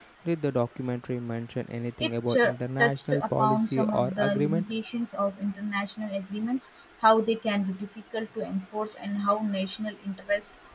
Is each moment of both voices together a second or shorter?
No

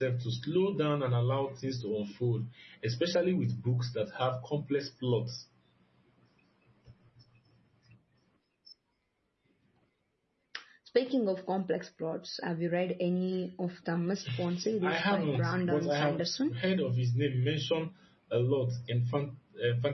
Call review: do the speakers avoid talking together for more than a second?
No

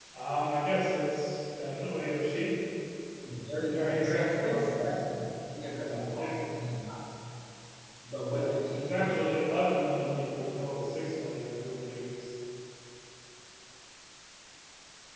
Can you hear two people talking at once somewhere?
Yes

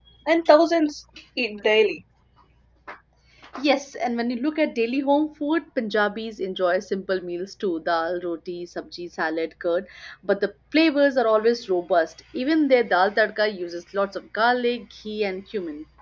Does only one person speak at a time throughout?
Yes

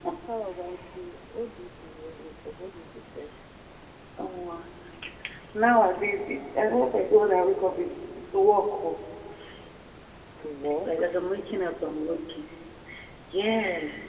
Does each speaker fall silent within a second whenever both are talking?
Yes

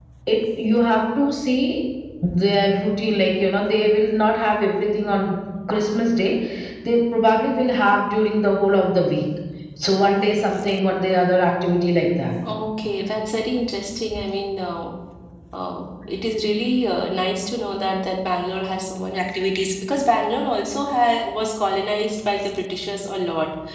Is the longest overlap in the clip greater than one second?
No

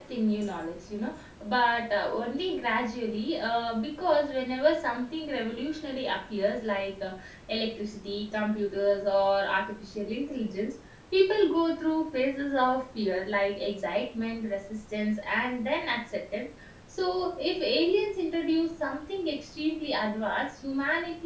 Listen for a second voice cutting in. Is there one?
No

